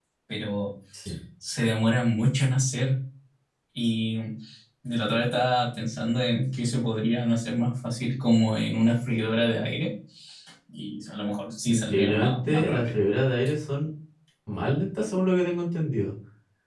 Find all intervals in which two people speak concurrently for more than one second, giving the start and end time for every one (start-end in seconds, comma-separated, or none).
11.7-12.9